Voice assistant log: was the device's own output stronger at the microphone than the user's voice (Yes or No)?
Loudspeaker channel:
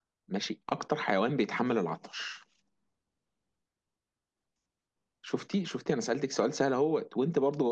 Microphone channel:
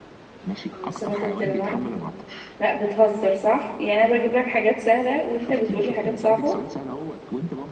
No